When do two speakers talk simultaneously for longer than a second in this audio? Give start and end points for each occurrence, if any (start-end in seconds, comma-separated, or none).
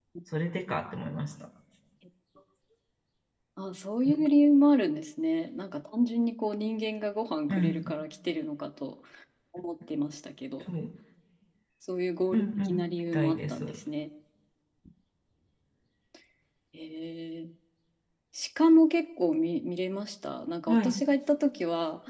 12.3-13.8